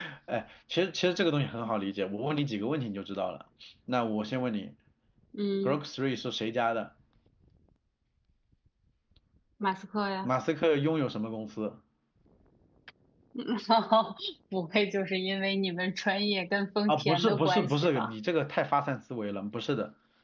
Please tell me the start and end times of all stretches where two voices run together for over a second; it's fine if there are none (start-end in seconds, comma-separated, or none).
16.9-18.1